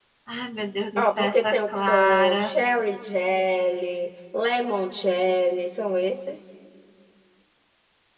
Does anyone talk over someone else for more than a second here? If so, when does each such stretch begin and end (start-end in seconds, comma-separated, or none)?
1.0-2.5